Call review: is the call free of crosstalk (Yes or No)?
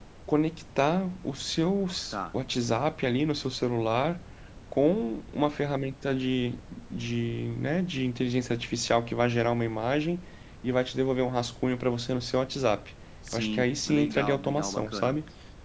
No